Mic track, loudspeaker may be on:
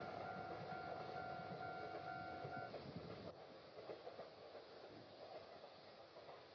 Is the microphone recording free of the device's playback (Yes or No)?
Yes